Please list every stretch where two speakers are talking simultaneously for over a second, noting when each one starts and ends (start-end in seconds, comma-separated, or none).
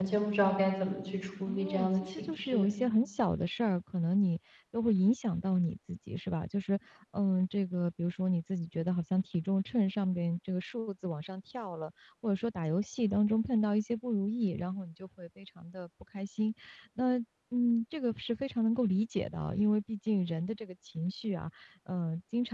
1.5-2.7